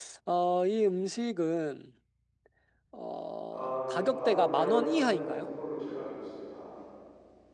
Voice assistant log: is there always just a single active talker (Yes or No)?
No